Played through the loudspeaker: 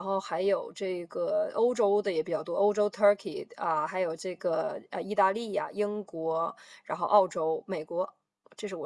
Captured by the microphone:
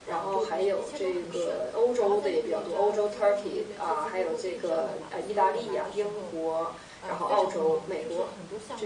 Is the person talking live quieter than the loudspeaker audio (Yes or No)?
Yes